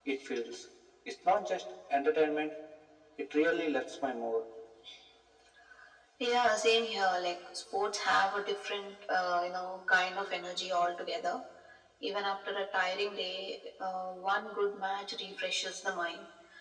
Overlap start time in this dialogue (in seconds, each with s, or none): none